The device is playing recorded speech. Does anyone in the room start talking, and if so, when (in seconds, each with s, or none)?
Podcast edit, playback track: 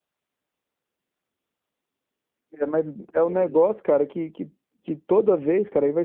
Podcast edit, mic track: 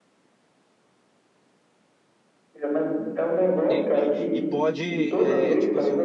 3.5 s